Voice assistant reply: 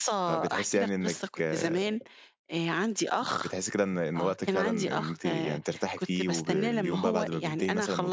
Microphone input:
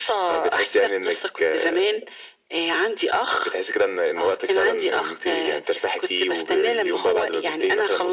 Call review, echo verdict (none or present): present